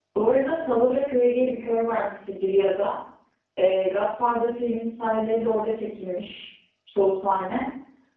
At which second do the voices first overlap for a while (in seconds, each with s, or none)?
none